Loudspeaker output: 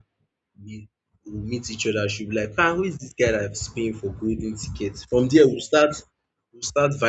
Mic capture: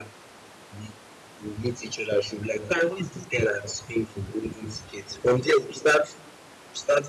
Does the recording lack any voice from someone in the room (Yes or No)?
Yes